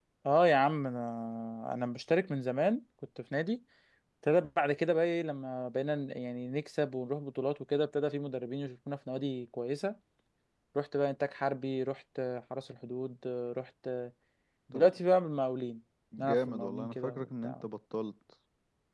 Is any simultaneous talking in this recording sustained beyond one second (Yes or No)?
Yes